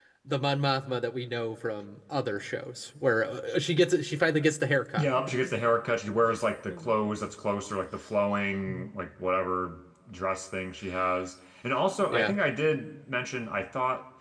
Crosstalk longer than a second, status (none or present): none